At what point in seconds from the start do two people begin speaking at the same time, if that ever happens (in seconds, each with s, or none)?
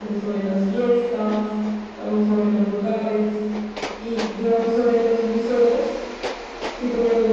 none